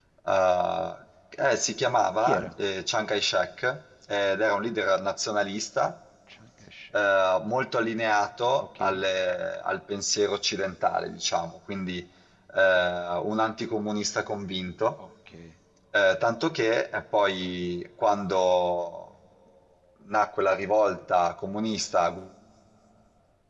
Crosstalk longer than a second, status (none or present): none